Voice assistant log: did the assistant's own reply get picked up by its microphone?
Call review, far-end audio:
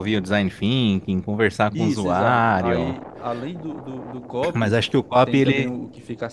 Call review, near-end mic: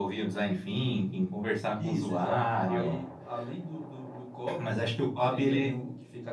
Yes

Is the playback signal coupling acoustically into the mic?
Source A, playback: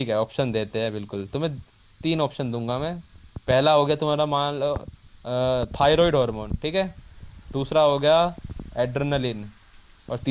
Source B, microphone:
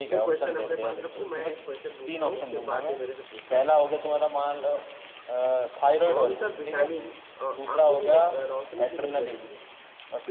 Yes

